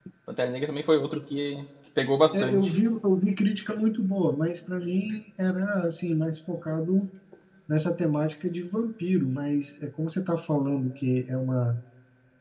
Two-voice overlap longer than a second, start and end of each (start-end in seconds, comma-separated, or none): none